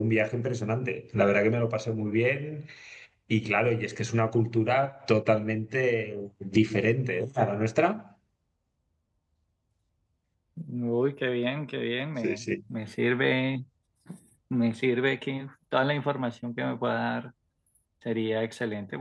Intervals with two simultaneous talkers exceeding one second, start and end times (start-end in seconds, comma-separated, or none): none